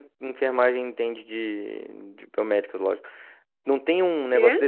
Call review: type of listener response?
listening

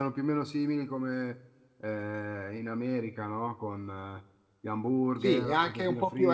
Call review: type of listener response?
taking over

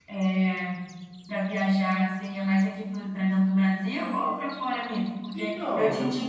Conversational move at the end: listening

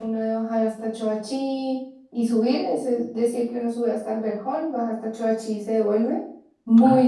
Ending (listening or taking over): taking over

